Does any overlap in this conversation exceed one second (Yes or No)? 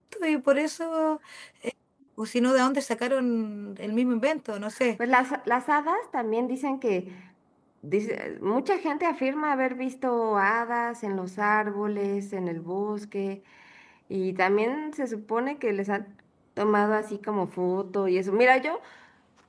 No